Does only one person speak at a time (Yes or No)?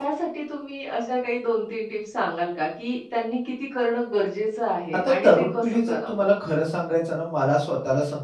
No